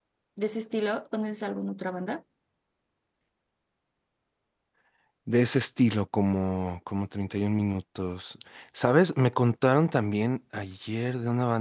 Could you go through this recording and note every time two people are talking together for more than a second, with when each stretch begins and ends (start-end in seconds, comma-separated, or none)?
none